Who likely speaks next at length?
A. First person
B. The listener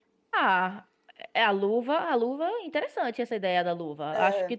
A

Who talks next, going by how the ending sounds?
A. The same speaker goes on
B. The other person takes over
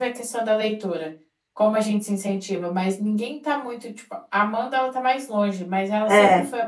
A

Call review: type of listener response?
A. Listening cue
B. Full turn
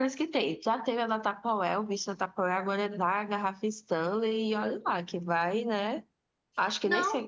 B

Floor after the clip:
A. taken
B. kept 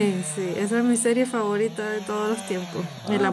B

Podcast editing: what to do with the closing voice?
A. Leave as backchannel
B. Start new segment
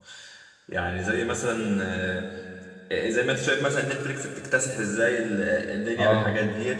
A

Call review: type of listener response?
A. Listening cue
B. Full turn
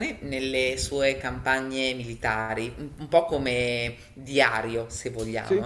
A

